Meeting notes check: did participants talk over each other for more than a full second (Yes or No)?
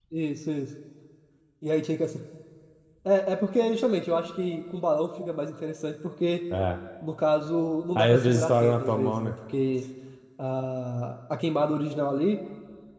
Yes